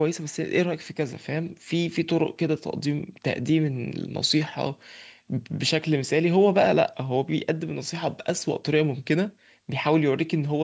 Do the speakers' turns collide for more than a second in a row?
No

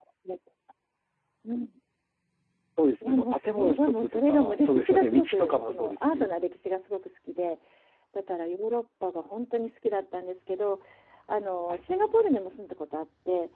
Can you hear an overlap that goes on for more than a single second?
Yes, from 3.0 s

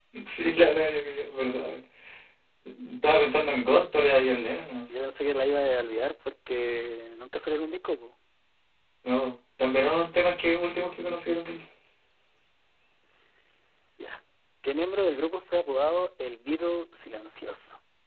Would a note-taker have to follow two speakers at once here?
No

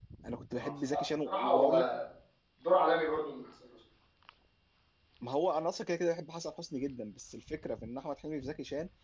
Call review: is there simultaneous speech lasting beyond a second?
Yes, from 0.6 s

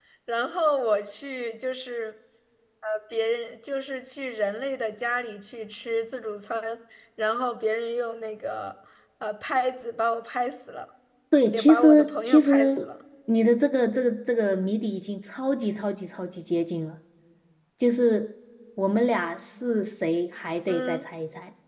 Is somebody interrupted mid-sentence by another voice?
Yes, from 11.5 s

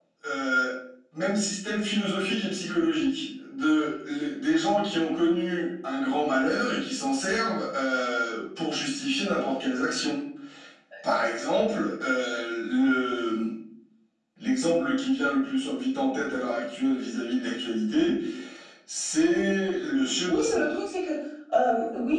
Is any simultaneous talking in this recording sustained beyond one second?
No

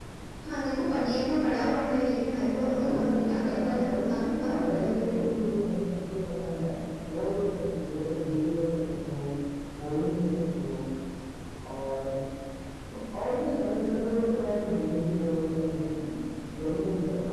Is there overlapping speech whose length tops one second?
Yes, from 2.5 s

